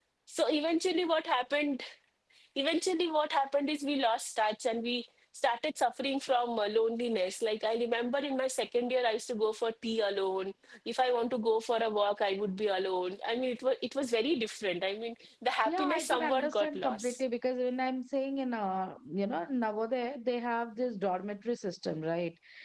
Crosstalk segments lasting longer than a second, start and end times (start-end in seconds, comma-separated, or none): 15.7-17.2